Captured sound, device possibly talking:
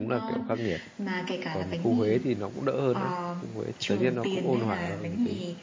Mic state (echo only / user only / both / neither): both